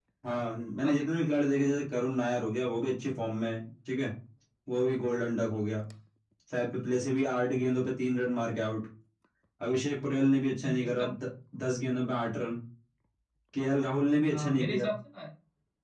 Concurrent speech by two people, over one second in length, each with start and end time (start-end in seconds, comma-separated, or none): none